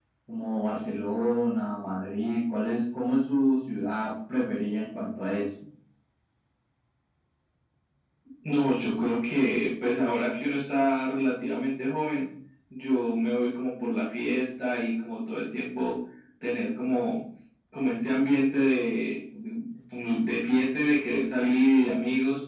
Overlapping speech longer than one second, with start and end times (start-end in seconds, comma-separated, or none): none